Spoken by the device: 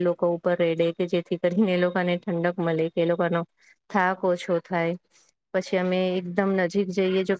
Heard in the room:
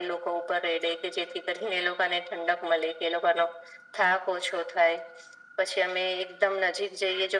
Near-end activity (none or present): none